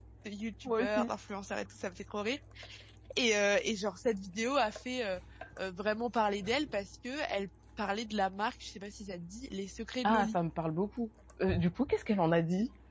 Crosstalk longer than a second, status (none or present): none